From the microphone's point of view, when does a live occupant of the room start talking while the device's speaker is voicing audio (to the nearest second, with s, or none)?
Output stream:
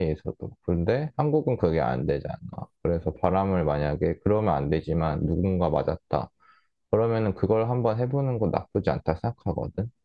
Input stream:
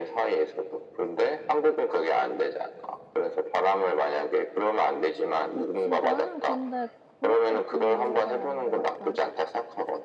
6 s